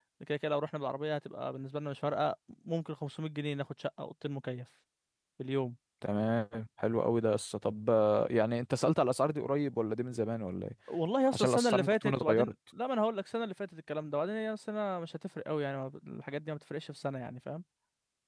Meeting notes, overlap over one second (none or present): present